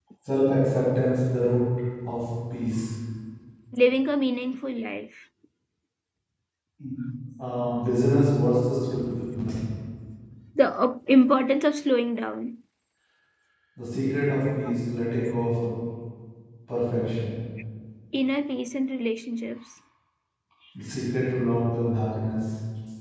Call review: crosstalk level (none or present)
none